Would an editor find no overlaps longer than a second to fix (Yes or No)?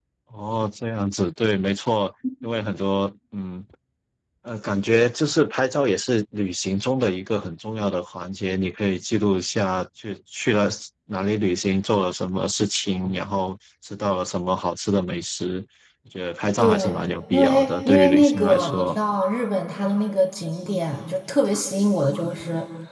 No